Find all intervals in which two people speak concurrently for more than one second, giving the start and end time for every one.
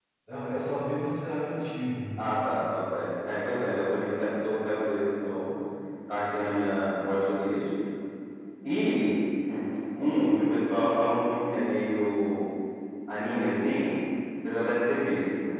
none

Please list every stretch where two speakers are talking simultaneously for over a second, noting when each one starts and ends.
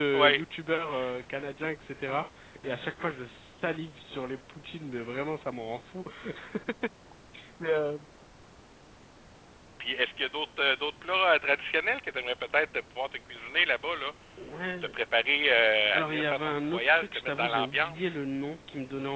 15.9-18.1

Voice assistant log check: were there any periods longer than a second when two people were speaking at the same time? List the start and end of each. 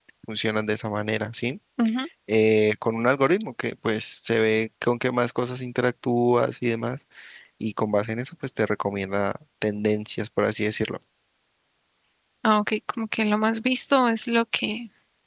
none

